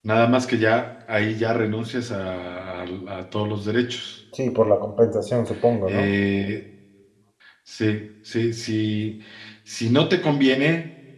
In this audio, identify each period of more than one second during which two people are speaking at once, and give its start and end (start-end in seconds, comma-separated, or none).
none